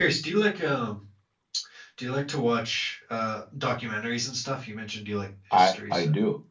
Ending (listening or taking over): taking over